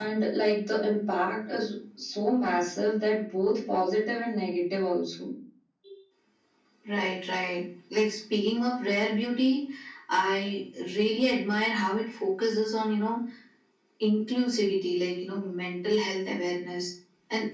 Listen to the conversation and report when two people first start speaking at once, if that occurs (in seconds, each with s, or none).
none